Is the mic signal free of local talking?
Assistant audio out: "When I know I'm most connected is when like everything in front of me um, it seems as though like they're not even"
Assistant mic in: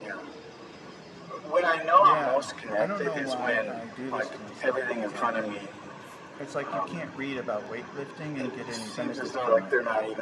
No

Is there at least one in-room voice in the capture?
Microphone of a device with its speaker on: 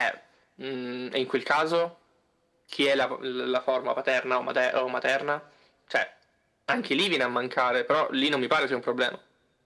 No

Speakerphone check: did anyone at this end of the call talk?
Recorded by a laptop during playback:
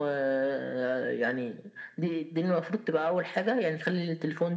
No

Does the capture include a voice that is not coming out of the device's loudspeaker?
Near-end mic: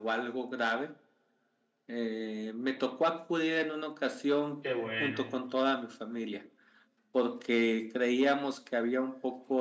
Yes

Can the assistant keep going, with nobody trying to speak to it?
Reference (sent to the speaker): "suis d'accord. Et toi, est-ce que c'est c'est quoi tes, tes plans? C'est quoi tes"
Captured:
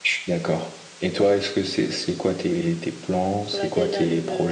No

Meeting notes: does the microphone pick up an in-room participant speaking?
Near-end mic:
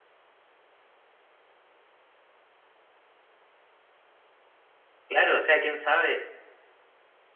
Yes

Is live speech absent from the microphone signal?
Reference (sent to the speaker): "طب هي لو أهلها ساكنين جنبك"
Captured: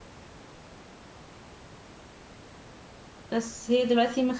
No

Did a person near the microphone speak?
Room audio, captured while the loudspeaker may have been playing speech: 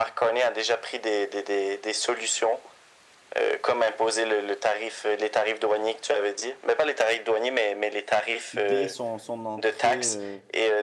Yes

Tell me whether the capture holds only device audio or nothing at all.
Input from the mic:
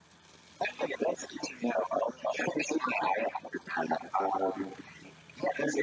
Yes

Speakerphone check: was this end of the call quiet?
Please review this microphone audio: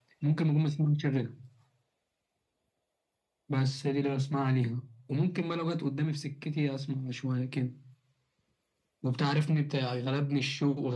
Yes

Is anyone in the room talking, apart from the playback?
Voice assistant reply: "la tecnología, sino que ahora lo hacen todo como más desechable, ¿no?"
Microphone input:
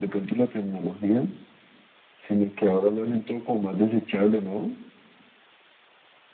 No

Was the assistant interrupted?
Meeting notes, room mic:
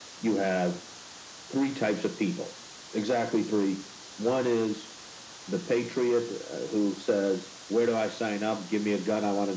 No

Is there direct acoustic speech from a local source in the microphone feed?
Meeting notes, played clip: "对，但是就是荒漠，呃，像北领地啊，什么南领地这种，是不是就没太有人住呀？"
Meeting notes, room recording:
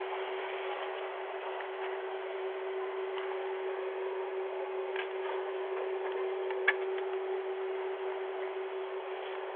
No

